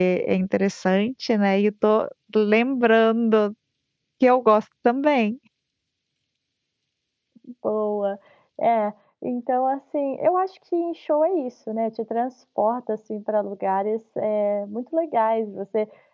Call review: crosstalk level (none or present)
none